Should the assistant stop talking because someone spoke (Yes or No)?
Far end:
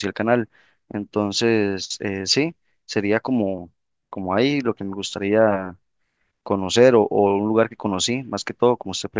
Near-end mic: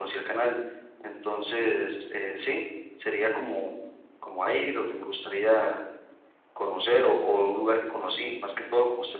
No